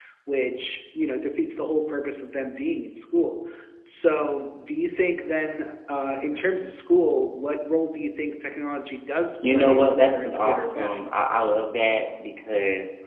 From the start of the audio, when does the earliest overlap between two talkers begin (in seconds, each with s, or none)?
9.4 s